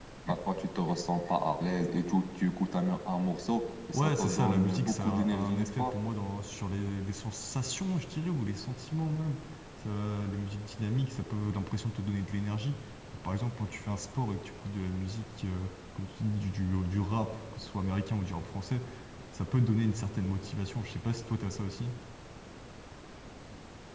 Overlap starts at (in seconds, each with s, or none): 3.9 s